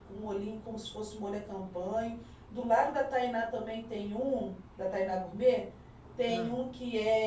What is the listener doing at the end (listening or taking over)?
listening